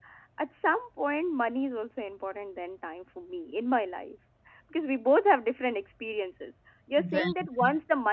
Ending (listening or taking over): listening